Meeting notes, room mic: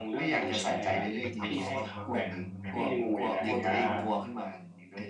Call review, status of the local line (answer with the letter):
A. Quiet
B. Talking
B